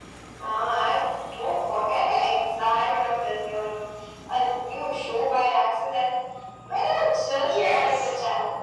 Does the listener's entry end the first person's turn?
Yes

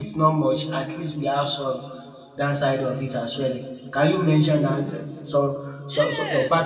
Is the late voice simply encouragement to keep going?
No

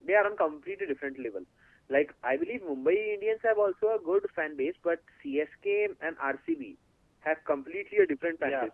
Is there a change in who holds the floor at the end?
Yes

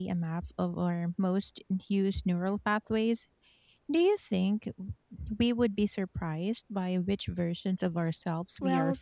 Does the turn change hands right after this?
Yes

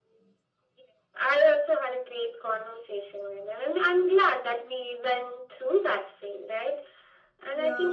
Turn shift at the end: No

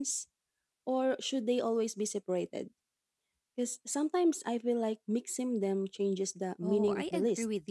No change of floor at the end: No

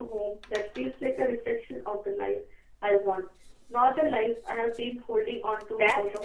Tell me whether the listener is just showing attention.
No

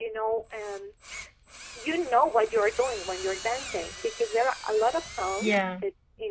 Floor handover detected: No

